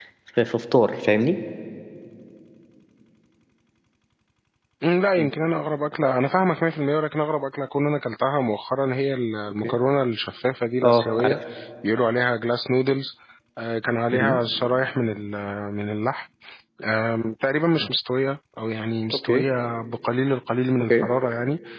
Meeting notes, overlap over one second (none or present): none